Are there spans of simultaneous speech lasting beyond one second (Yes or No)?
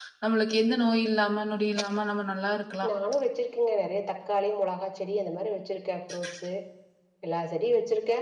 No